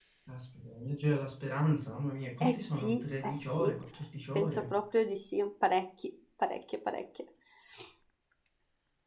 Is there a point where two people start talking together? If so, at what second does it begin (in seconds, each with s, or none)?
2.4 s